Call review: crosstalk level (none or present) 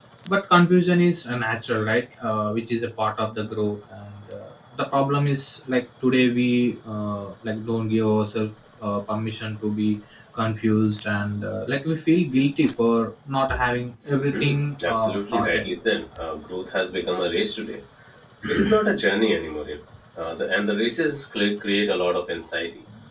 present